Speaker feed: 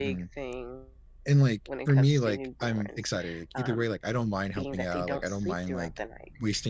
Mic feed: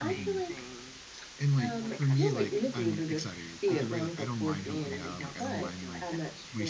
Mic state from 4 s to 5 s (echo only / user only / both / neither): both